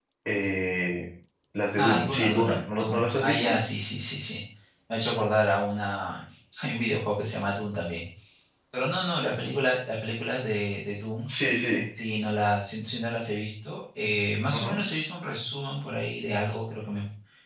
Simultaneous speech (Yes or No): Yes